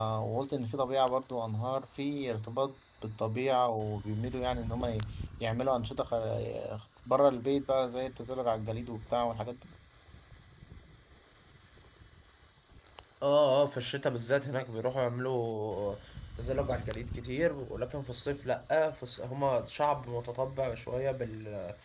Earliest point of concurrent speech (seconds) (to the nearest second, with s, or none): none